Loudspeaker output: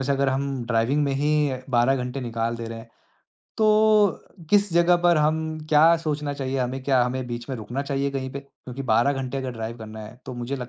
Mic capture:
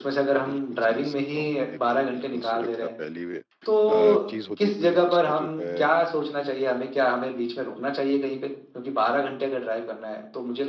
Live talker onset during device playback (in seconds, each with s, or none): 0.4 s